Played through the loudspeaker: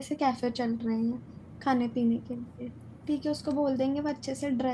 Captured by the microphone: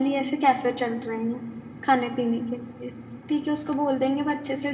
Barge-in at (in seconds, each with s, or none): none